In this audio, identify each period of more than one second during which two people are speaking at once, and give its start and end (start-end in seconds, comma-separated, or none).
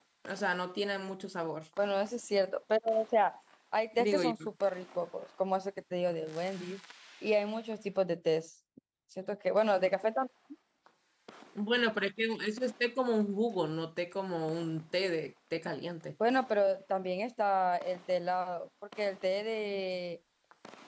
none